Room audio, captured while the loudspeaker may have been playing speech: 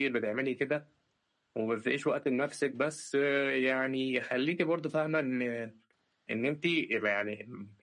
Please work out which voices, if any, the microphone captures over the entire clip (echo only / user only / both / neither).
echo only